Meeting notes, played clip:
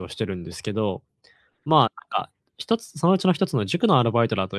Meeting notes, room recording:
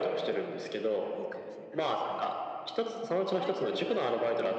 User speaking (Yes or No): Yes